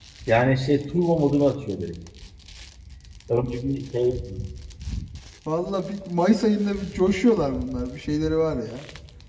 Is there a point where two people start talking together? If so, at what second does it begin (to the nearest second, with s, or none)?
none